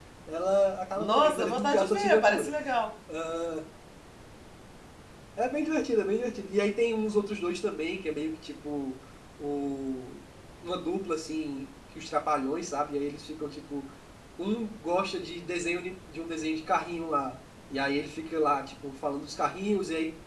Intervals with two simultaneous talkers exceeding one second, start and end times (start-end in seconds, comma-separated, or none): 1.0-2.5